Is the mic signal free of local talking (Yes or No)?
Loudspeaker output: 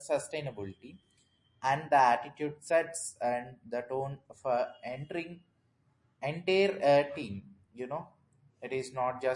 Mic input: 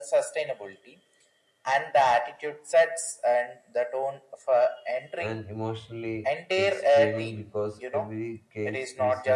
No